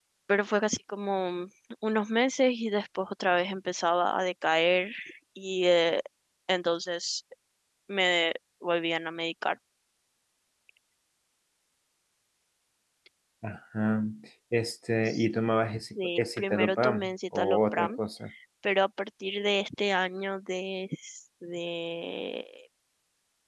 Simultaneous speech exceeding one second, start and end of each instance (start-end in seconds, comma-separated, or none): 15.9-18.0